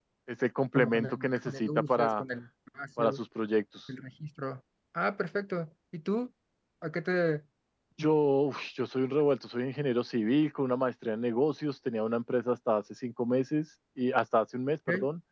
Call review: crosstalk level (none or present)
present